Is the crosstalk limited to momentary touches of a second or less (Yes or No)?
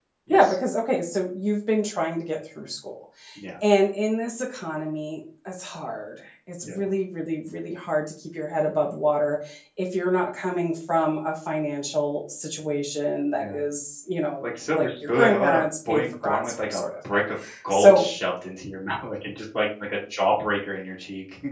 No